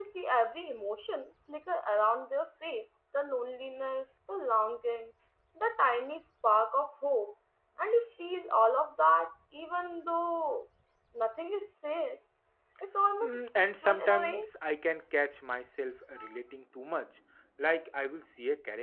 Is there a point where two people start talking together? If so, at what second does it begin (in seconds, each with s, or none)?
13.2 s